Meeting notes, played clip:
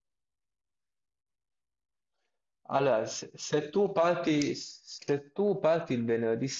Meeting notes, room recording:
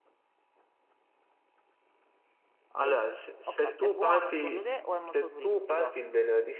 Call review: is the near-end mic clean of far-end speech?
No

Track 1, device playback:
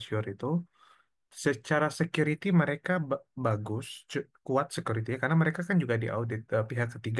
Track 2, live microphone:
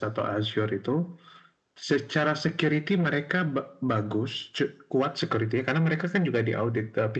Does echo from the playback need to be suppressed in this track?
Yes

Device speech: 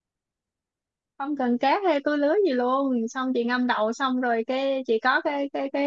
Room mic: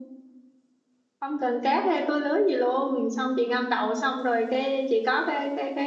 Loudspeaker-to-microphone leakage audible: Yes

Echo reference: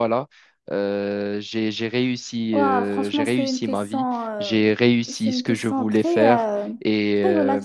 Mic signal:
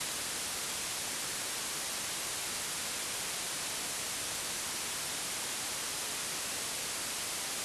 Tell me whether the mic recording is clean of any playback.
Yes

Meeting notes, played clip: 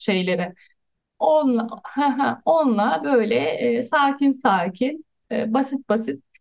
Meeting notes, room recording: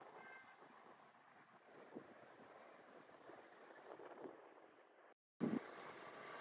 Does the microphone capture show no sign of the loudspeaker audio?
Yes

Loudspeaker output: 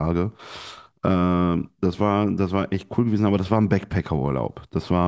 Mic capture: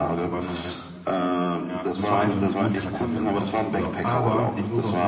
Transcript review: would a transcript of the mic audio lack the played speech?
No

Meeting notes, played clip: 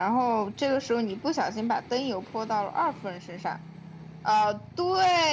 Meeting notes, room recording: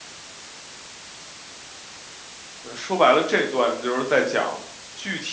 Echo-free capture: Yes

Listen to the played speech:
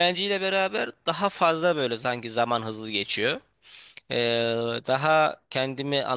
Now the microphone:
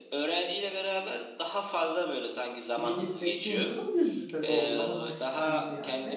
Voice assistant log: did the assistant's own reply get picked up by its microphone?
Yes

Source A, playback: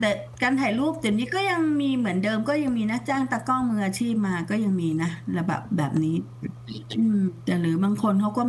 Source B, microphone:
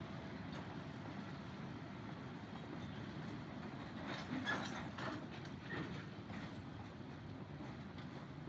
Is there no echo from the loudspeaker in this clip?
Yes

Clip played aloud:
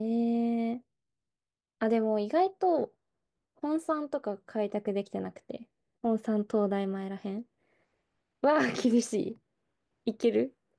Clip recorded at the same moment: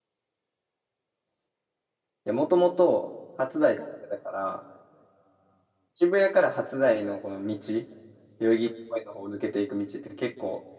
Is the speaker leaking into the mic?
No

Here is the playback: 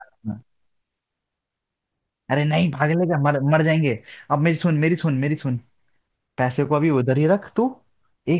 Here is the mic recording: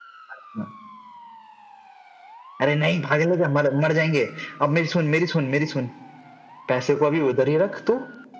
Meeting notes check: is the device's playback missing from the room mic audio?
No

